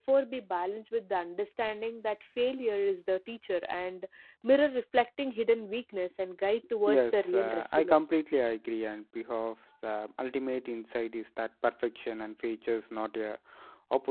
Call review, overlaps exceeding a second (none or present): present